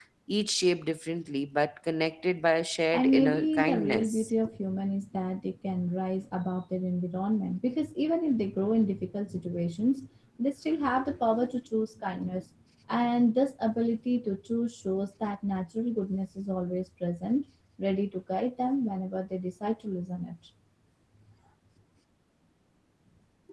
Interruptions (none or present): present